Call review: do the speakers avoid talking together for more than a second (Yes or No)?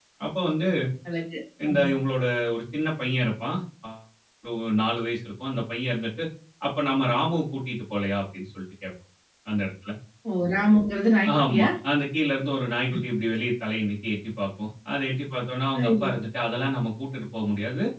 Yes